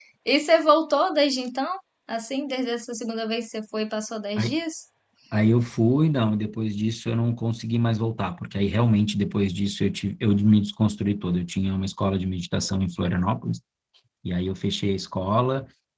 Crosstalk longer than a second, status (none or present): none